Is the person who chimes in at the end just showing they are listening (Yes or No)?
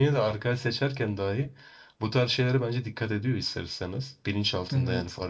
Yes